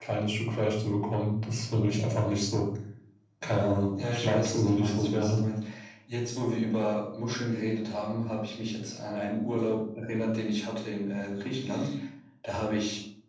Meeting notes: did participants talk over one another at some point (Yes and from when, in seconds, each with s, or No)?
Yes, from 4.1 s